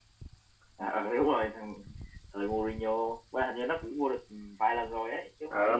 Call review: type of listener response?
taking over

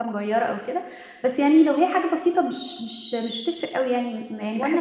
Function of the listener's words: taking over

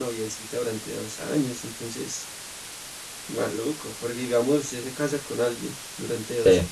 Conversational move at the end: listening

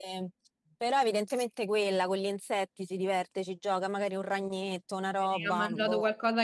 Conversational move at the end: taking over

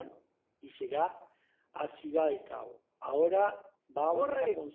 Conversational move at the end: taking over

